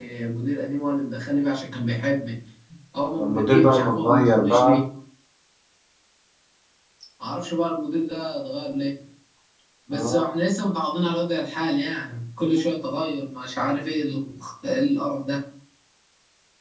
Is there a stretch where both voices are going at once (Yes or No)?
Yes